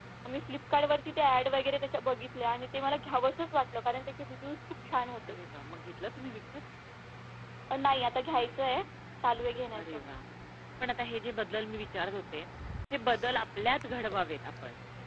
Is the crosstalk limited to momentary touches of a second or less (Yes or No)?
Yes